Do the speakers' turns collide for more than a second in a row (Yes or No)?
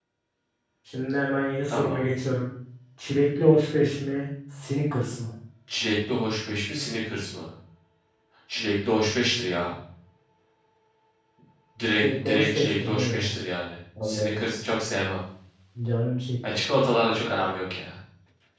Yes